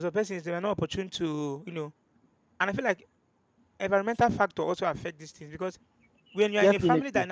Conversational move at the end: listening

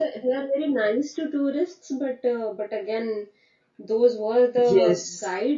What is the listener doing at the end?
listening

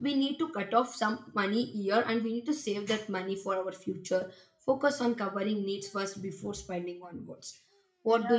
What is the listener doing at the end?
taking over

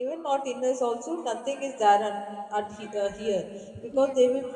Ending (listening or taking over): listening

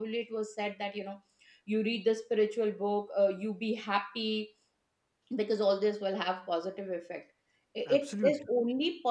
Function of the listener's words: listening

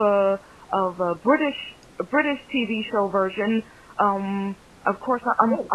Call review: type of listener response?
listening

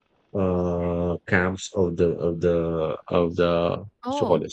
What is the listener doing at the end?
listening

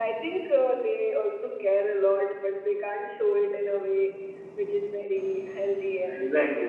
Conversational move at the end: taking over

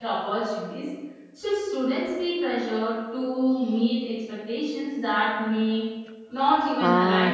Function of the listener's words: taking over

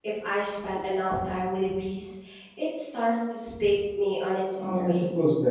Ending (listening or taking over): taking over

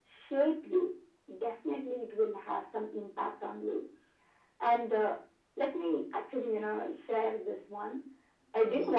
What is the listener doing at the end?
listening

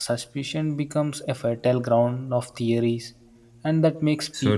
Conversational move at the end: listening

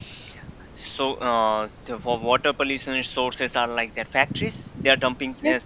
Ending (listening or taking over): listening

